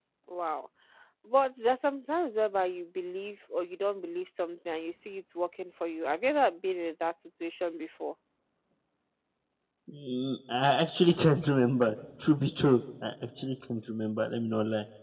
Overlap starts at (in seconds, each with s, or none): none